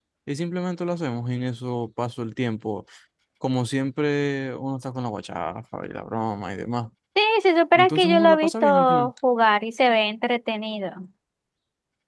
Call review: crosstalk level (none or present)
present